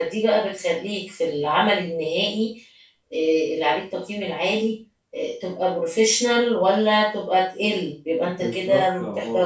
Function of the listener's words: taking over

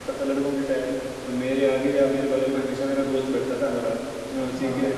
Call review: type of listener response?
listening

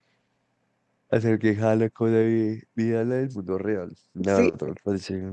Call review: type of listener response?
listening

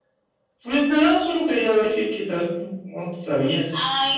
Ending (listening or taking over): taking over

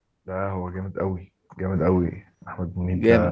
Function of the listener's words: taking over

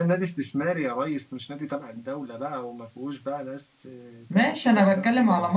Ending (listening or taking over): taking over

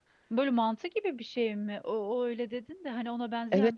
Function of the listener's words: taking over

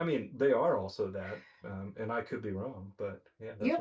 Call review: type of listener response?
taking over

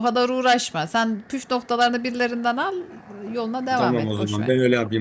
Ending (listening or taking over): taking over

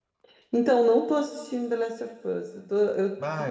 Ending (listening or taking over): taking over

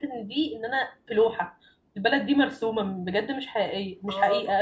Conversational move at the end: taking over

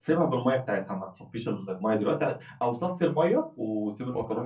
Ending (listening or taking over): listening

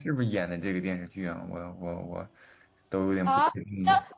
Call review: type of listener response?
taking over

